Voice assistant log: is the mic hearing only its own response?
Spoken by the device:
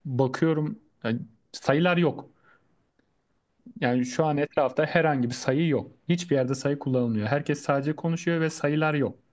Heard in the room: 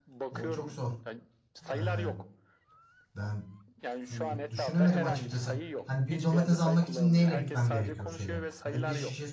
No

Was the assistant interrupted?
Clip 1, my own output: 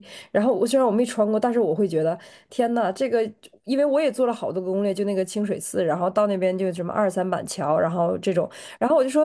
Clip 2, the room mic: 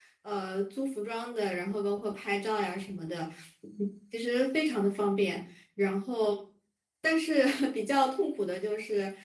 Yes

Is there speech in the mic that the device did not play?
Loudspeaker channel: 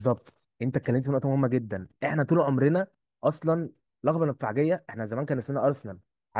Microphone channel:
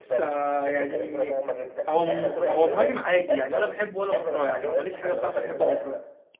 Yes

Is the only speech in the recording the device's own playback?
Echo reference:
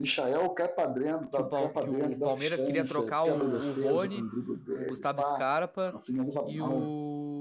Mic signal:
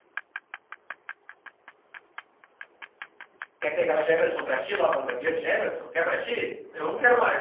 No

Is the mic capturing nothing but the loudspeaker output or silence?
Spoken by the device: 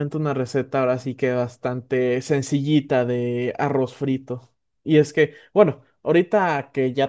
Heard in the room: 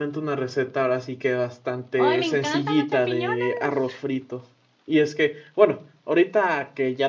No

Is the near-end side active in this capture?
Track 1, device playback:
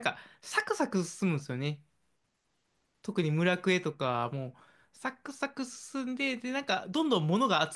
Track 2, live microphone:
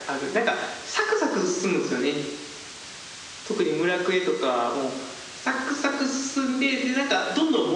No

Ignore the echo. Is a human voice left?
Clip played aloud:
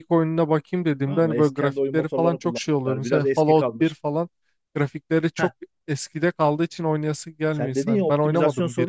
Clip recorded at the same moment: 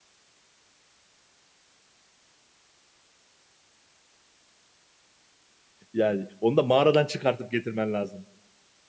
Yes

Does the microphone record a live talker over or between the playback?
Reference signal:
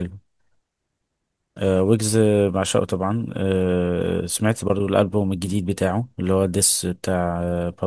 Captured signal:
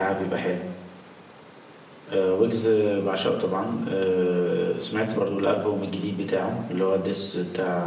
No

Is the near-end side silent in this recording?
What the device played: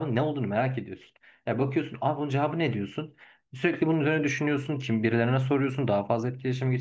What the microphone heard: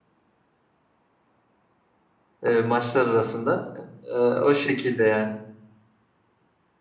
No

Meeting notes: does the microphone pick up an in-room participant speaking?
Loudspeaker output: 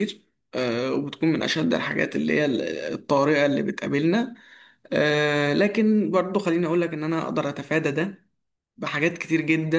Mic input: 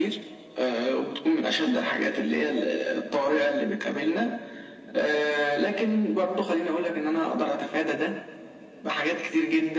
No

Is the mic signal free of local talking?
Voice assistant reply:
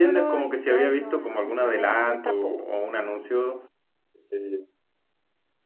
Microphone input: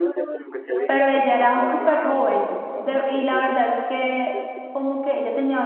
No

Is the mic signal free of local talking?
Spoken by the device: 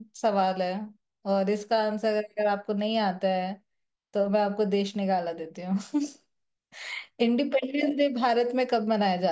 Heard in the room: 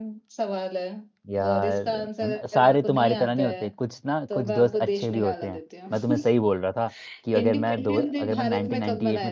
No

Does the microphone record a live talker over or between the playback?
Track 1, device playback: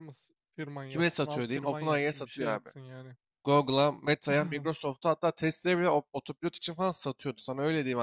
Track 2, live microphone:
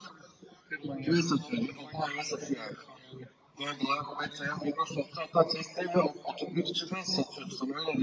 No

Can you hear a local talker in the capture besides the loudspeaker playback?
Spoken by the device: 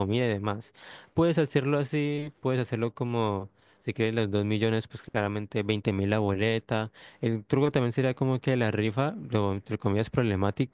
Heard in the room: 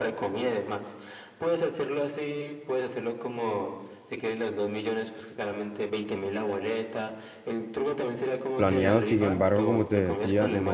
Yes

